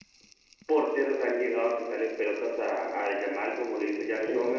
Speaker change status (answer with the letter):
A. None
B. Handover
A